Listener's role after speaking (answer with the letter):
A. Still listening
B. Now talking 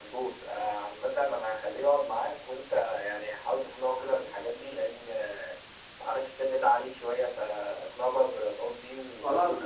B